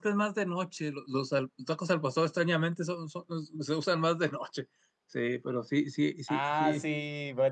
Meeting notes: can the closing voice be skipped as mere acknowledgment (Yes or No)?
No